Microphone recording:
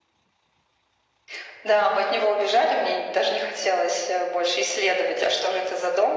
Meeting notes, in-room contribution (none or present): none